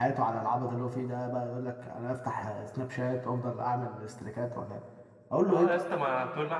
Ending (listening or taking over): taking over